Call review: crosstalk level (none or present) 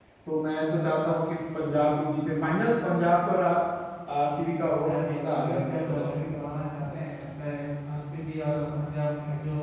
present